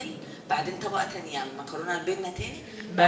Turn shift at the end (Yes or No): Yes